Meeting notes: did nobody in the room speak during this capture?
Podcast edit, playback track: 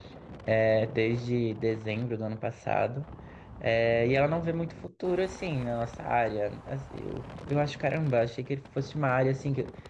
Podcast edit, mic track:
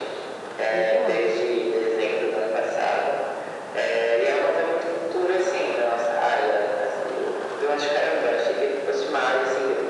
No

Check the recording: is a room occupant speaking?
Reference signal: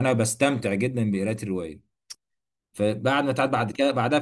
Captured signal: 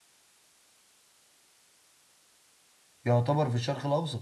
Yes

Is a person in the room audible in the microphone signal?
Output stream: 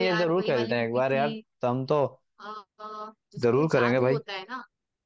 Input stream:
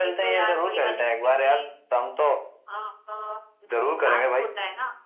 No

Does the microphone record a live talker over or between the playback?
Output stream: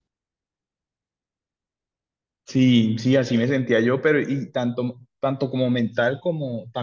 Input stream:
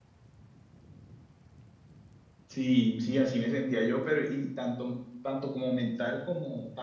No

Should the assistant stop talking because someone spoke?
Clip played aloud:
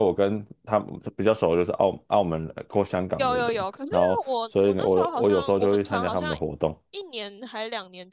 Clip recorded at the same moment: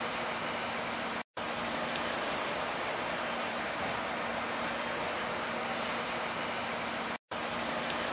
No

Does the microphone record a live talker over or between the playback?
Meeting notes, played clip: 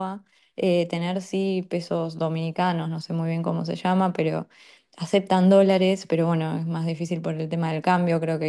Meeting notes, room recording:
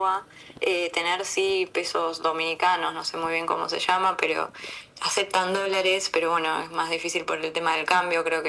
No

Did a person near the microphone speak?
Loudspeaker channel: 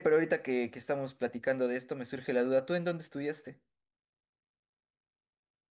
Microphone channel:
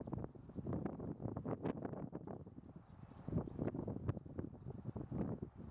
No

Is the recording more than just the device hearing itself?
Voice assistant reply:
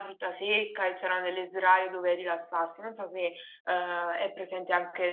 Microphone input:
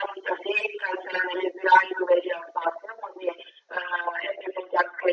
No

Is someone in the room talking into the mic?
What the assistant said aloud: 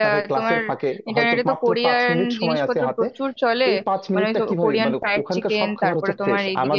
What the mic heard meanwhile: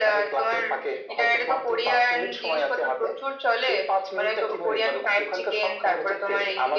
No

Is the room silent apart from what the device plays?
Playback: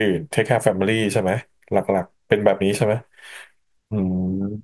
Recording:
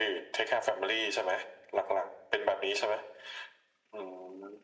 Yes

